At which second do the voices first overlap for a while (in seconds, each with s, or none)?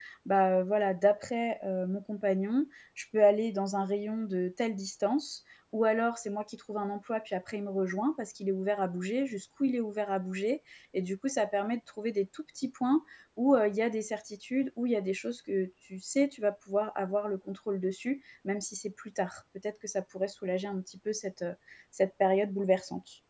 none